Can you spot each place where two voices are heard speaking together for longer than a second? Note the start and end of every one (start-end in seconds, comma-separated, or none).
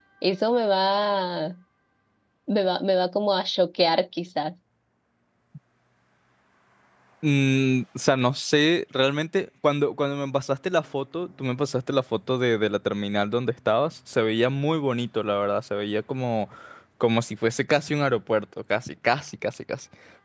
none